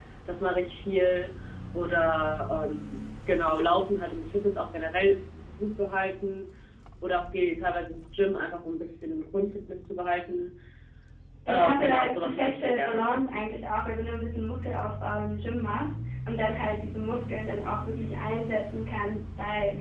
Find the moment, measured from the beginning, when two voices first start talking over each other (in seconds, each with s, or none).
11.5 s